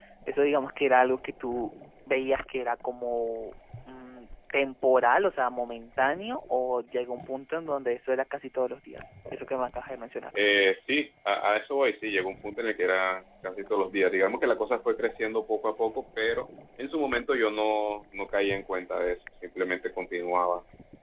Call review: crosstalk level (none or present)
none